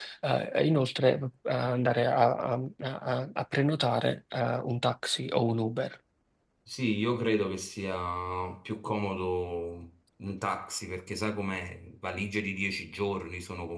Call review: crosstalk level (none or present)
none